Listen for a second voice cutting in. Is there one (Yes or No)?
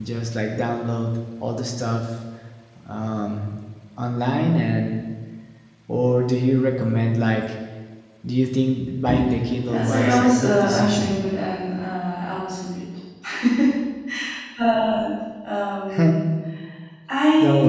Yes